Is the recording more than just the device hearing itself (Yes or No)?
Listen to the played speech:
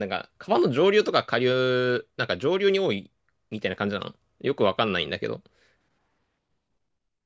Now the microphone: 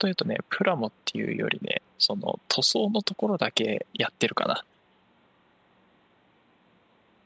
Yes